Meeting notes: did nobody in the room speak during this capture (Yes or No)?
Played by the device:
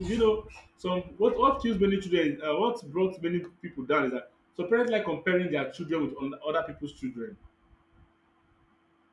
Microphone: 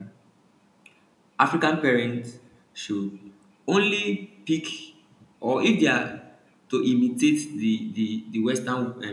No